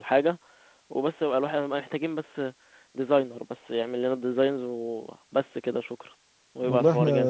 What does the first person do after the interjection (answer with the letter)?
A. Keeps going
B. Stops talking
B